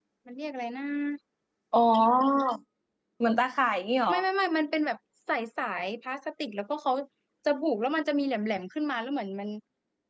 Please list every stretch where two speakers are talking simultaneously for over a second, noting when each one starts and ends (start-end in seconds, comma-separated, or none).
none